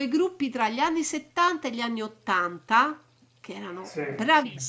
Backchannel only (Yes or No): Yes